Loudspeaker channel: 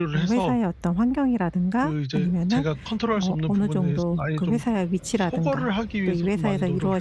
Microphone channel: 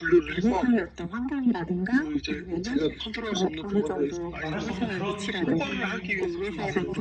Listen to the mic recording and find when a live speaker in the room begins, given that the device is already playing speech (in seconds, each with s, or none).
3.8 s